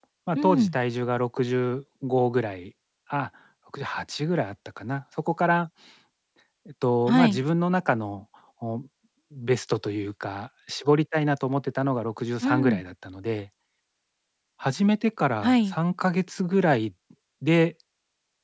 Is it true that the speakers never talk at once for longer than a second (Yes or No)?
Yes